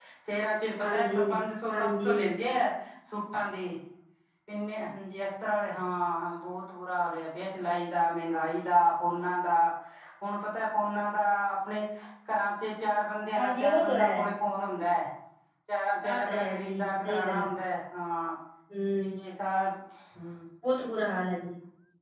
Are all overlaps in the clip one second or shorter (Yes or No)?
No